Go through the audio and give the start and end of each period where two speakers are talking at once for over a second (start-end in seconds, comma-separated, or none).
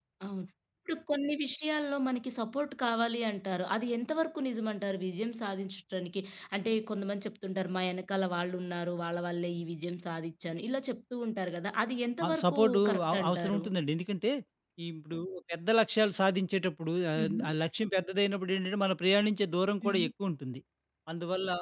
12.2-13.6